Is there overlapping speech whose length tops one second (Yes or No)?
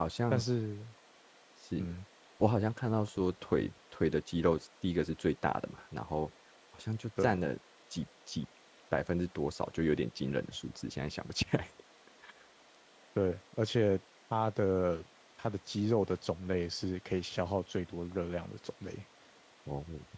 No